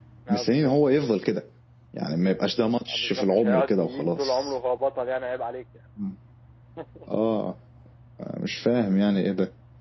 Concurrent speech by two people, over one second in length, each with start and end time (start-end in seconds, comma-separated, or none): 2.9-4.6